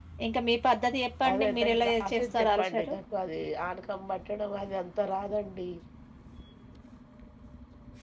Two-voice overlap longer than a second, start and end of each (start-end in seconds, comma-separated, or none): 1.3-2.9